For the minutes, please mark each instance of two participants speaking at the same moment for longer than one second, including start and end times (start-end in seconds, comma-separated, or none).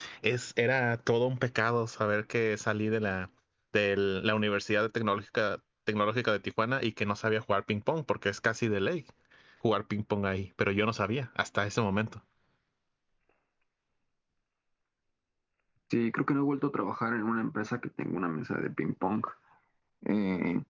none